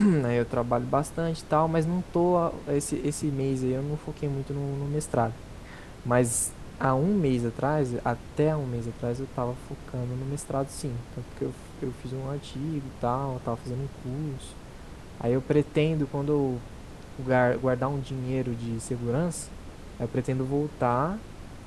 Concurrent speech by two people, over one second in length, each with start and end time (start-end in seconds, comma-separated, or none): none